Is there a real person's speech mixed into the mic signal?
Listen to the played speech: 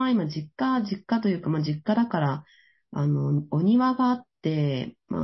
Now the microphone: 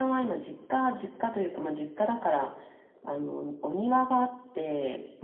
No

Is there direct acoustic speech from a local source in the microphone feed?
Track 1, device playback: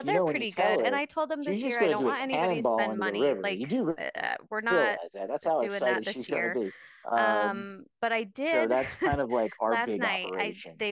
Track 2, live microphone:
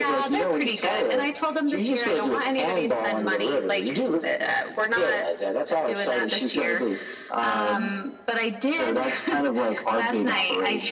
No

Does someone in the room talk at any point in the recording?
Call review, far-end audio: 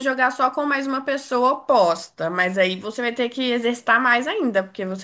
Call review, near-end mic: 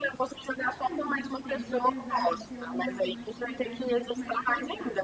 Yes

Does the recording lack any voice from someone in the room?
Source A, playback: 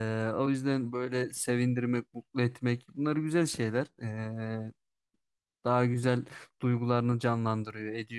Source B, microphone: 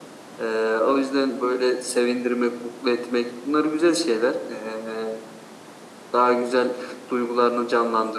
Yes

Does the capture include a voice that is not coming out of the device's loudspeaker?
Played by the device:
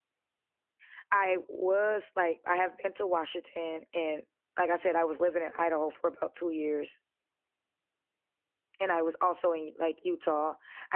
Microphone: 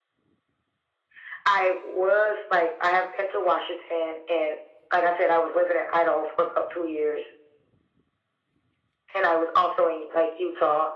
No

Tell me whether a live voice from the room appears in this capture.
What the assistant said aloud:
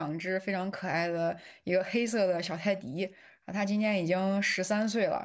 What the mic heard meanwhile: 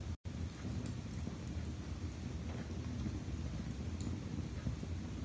No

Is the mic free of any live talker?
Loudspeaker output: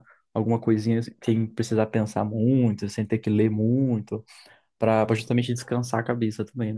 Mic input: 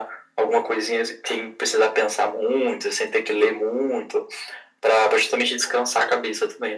Yes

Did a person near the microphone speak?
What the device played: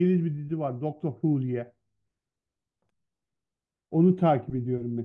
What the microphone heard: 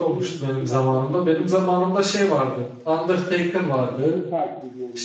Yes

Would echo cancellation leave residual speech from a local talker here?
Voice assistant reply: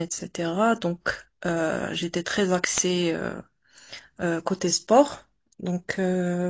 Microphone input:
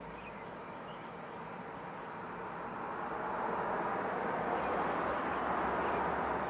No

